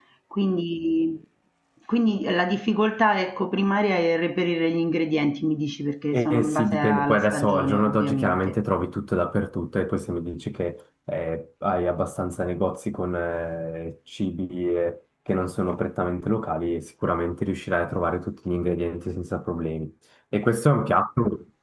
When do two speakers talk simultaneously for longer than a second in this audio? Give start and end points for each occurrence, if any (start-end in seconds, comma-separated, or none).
6.1-8.5